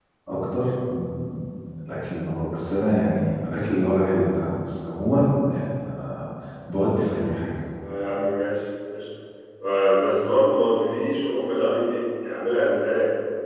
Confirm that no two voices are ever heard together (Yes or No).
Yes